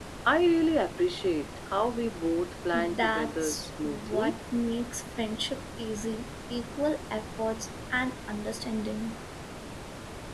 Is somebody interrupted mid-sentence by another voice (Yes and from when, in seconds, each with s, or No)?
Yes, from 2.7 s